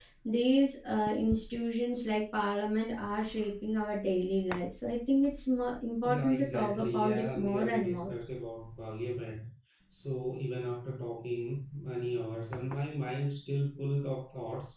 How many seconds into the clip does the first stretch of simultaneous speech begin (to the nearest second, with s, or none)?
6 s